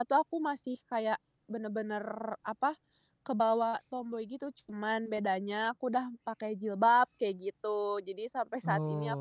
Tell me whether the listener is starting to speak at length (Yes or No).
No